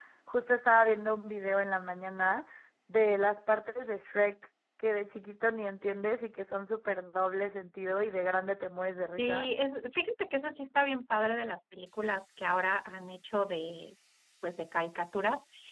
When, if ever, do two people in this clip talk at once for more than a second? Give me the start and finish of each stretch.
none

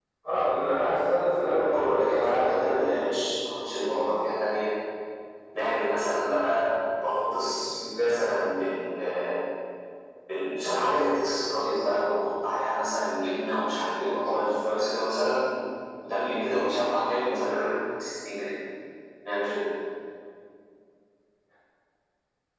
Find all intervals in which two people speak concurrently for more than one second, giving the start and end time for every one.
1.6-3.0

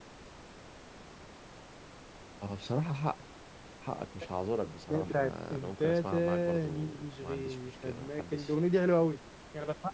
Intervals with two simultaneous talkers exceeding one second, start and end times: 4.9-8.5

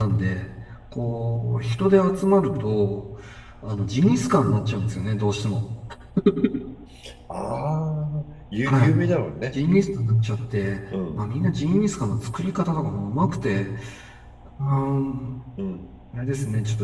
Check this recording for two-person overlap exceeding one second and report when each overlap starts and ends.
none

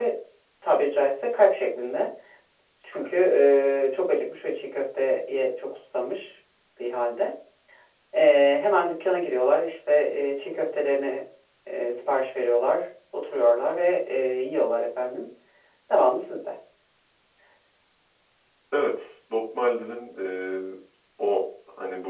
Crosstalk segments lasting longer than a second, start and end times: none

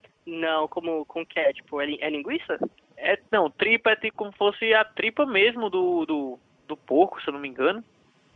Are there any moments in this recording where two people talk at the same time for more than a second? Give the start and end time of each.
none

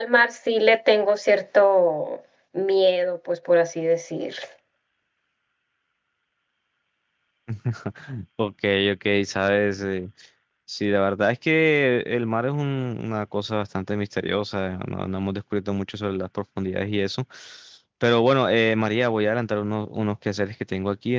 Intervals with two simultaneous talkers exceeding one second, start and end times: none

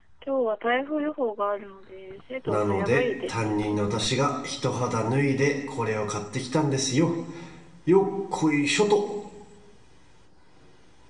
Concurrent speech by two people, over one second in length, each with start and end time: 2.5-3.8

